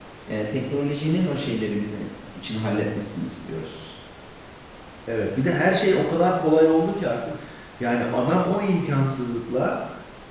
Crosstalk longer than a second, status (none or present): none